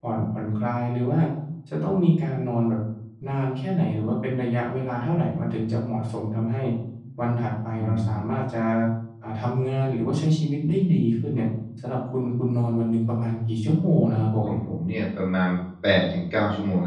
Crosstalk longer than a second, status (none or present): none